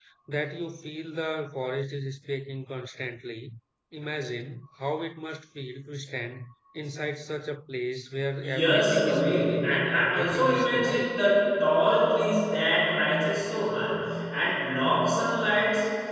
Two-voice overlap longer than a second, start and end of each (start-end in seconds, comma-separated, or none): 8.4-11.1